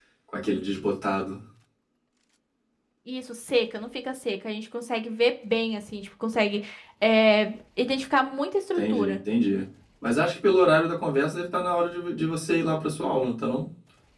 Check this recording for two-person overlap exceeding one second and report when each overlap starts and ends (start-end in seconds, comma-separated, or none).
none